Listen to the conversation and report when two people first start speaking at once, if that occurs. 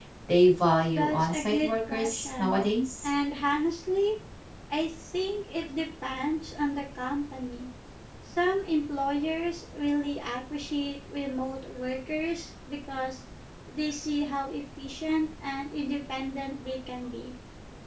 1 s

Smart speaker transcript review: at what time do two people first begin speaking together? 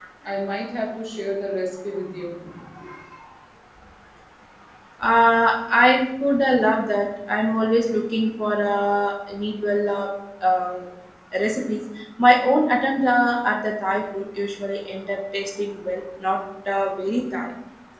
none

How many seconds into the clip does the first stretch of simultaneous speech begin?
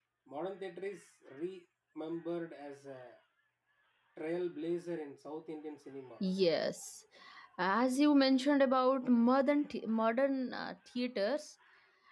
none

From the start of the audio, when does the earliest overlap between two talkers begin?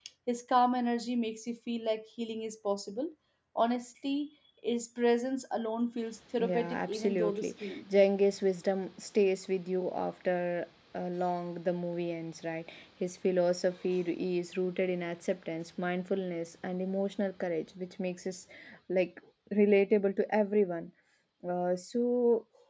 6 s

